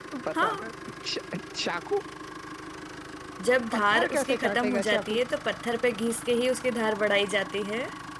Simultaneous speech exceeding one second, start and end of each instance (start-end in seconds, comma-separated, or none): 3.7-5.2